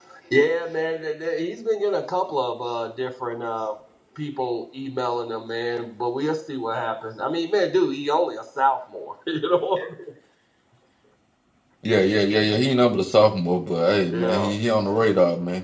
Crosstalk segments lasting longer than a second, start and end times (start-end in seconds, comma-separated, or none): none